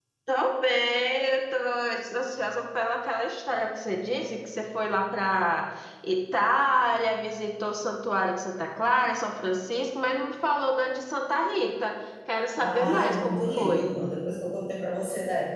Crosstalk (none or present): present